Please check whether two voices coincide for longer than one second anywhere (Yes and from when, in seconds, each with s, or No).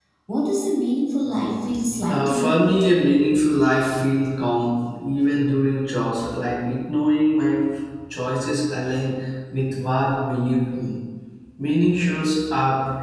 No